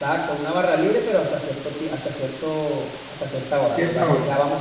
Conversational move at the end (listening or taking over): listening